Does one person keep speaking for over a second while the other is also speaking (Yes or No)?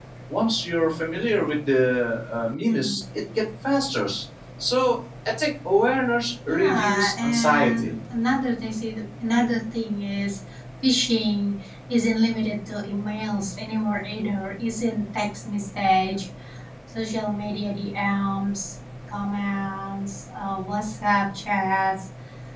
Yes